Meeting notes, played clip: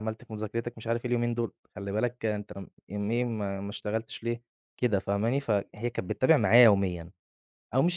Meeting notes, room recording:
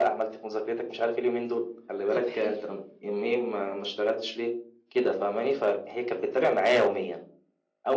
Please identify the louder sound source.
echo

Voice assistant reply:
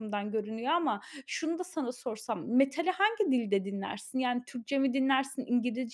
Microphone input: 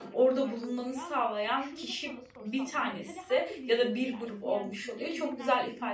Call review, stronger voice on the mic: user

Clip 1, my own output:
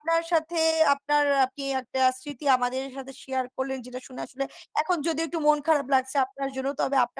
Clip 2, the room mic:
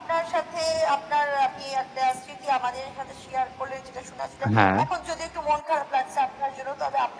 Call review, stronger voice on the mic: user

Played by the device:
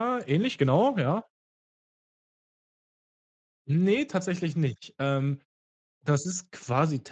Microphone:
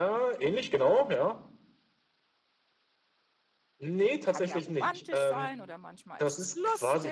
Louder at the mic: echo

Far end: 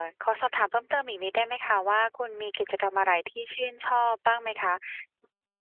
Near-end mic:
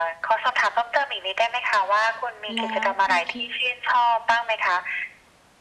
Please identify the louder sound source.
echo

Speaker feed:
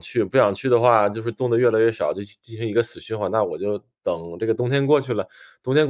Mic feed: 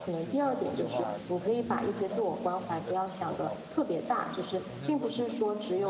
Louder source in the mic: user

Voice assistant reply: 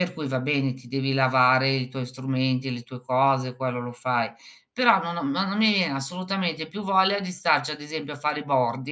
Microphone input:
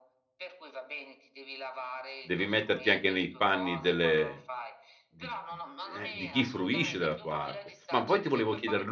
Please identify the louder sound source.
user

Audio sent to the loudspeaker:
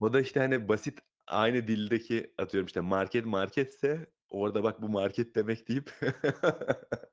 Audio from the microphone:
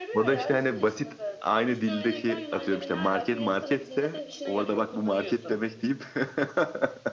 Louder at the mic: echo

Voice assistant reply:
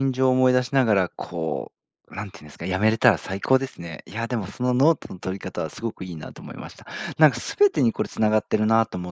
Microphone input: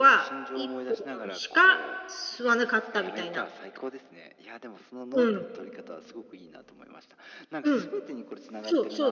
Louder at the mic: user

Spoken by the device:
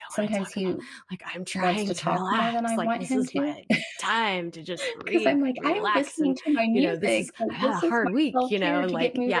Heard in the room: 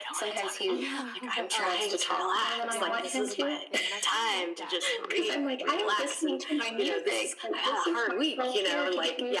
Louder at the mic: echo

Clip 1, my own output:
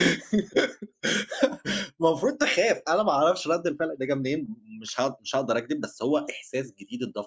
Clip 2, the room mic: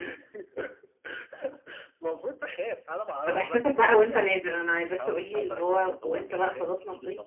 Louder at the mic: user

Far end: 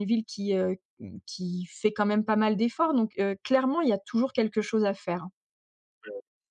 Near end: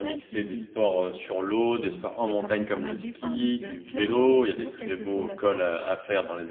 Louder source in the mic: user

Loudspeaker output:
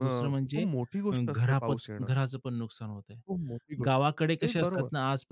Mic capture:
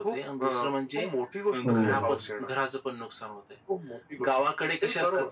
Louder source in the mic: user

